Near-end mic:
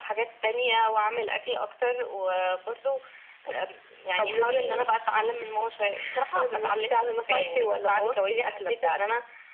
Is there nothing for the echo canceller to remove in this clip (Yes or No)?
No